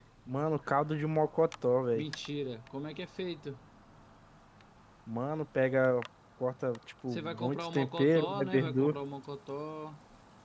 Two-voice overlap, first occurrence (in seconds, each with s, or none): 7.1 s